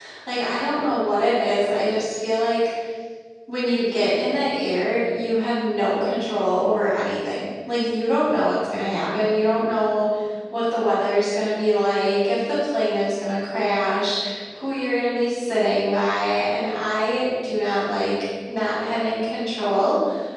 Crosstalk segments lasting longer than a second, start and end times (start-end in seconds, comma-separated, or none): none